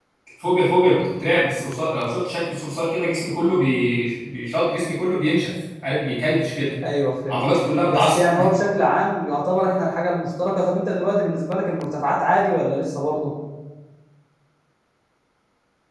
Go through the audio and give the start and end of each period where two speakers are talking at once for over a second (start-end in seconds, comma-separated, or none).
none